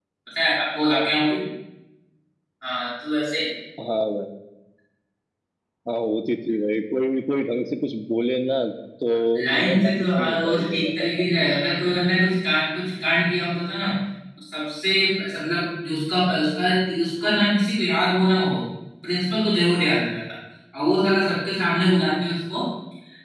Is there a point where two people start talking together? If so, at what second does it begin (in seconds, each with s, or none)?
9.6 s